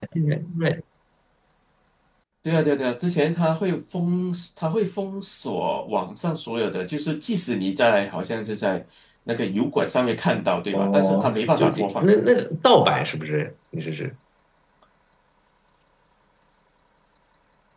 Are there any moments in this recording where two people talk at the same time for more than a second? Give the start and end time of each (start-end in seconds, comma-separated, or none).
10.7-12.1